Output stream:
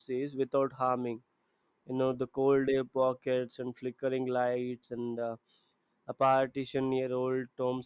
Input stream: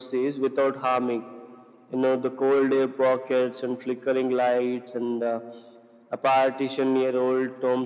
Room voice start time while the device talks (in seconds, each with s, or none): none